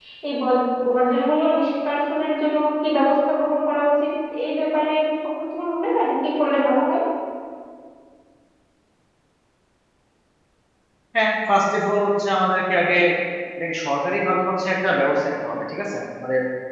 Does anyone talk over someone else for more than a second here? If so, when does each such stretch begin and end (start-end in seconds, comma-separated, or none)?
none